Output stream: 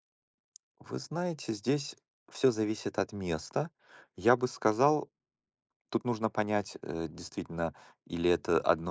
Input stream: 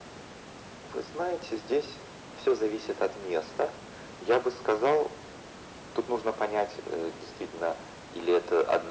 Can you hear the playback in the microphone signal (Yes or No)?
Yes